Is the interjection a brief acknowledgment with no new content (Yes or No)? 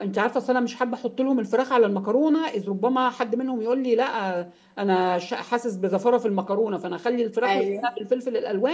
Yes